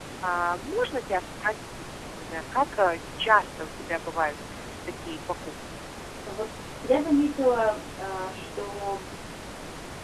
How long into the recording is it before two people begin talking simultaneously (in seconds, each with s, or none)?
none